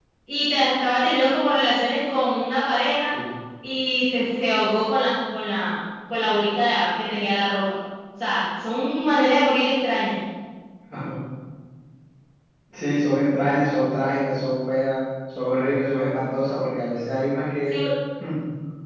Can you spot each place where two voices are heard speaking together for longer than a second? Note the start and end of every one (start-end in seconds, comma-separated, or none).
none